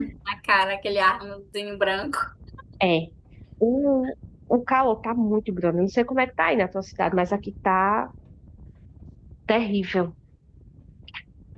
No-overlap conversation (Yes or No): Yes